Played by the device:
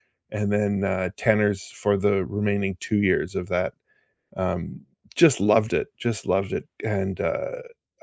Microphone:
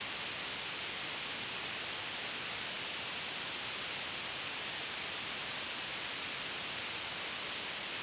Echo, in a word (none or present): none